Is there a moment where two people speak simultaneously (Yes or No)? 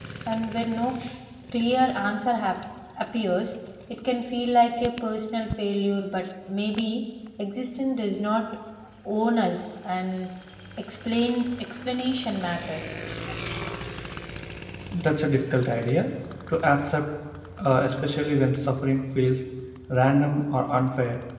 No